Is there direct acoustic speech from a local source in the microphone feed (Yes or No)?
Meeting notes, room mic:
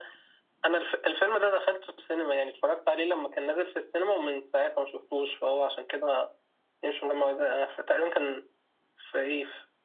No